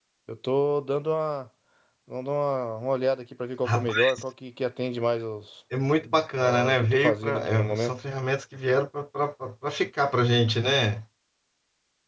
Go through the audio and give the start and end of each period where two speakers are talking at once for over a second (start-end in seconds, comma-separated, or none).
6.4-7.9